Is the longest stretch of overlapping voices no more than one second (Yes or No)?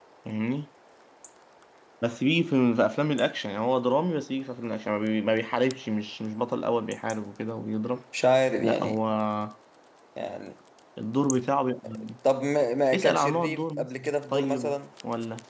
No